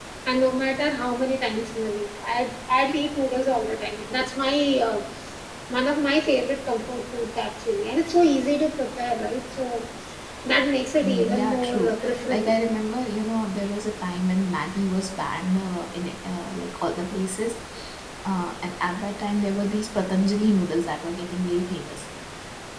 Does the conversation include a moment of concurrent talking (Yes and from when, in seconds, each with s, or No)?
Yes, from 11.0 s